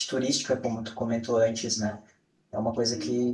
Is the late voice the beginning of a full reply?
No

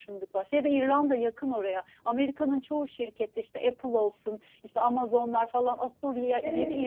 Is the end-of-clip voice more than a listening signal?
Yes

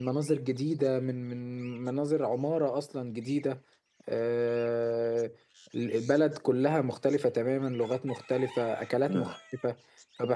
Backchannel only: Yes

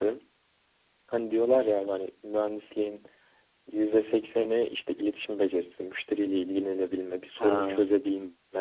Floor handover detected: No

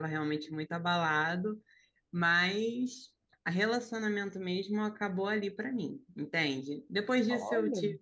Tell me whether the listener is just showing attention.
Yes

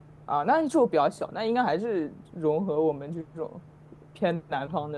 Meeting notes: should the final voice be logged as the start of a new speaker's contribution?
Yes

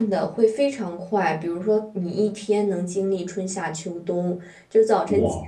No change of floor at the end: Yes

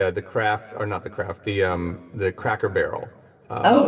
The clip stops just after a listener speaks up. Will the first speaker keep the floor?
No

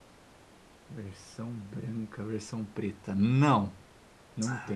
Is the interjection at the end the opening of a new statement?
Yes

